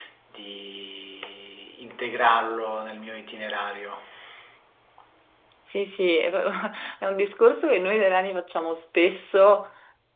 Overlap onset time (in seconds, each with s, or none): none